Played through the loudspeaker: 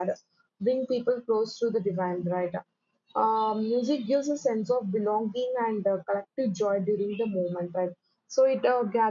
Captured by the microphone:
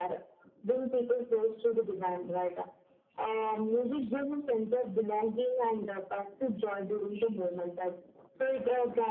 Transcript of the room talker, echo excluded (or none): none